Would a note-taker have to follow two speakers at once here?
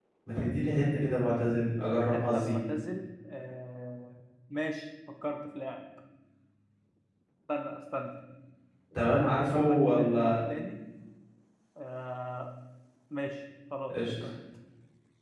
Yes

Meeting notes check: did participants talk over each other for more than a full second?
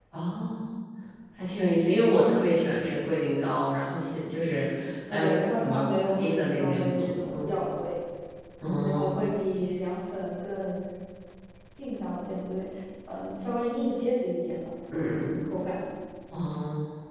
Yes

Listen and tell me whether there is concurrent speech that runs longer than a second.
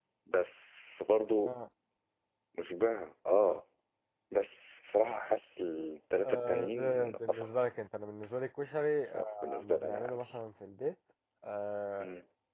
Yes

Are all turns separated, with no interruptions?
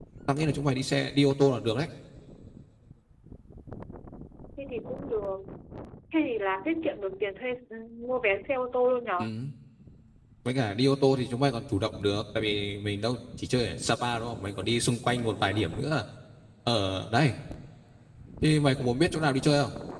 Yes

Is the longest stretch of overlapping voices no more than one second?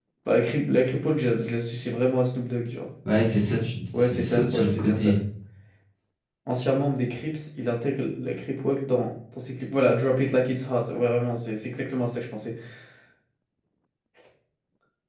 No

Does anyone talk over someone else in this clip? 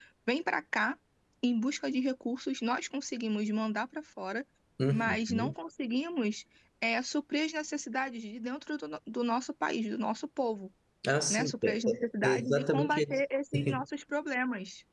Yes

